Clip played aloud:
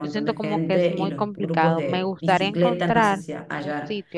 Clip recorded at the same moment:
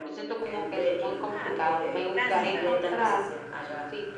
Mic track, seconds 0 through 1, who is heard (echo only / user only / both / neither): echo only